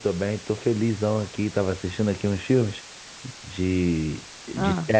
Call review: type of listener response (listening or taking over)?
listening